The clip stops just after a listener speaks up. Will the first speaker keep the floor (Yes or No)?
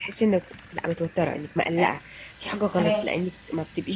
Yes